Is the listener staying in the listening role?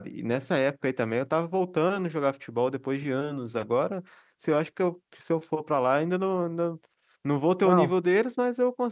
Yes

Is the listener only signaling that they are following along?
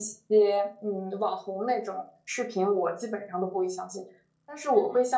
Yes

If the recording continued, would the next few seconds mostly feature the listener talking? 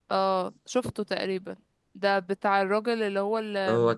No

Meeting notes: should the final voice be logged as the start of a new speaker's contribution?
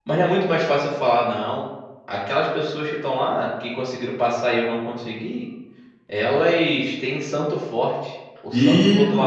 Yes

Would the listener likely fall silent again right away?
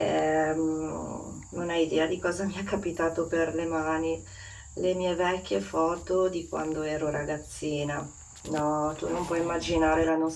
Yes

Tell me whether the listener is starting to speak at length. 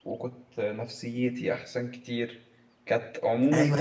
Yes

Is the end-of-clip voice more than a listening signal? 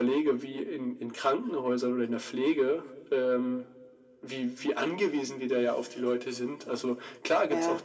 No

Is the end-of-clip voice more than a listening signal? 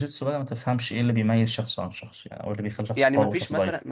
Yes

